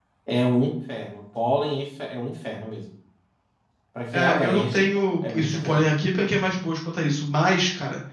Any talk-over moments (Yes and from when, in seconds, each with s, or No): Yes, from 4.1 s